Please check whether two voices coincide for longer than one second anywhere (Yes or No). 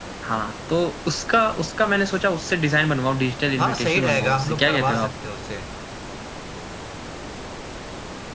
Yes